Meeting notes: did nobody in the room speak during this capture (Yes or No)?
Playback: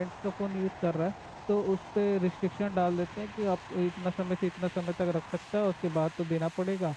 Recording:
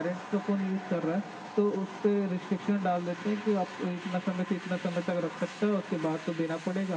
Yes